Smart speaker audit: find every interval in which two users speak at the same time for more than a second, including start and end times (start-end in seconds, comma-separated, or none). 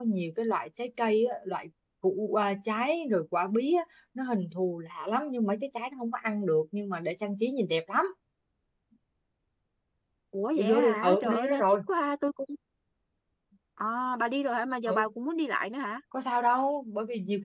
10.6-11.8